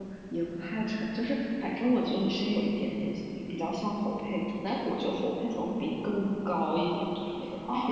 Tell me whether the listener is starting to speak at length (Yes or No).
Yes